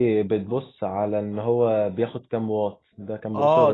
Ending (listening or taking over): taking over